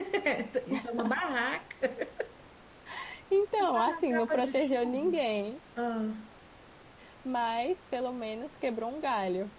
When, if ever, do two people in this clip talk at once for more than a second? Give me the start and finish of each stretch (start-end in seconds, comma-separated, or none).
3.6-5.2